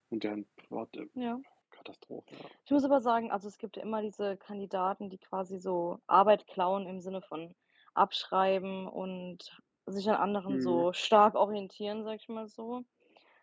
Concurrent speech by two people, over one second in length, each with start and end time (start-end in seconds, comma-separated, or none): none